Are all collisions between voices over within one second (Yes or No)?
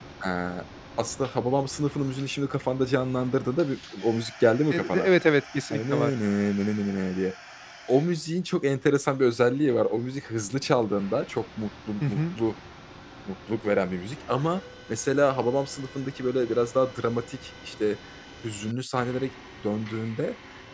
Yes